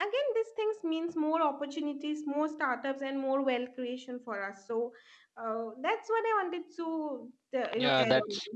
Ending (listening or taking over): taking over